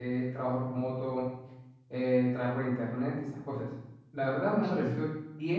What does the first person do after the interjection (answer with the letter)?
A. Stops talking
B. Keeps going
B